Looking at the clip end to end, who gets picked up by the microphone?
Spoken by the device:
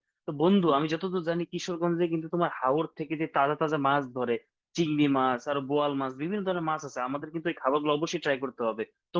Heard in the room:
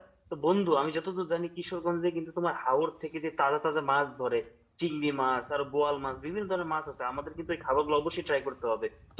echo only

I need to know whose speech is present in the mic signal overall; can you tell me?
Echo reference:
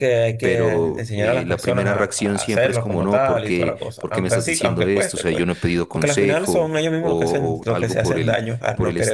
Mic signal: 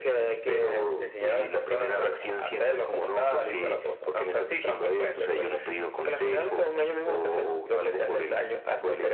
echo only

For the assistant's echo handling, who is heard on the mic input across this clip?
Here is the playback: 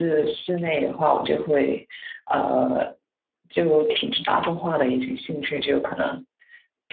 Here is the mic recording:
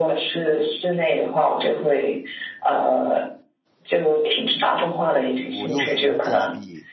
both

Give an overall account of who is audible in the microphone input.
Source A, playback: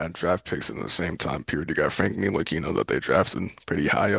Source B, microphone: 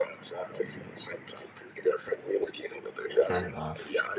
both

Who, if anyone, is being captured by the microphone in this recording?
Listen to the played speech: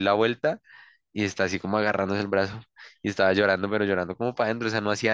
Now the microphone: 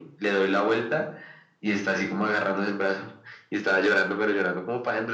echo only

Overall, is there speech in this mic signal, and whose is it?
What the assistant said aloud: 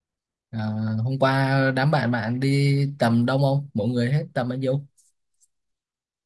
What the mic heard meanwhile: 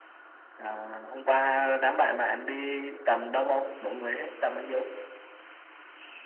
echo only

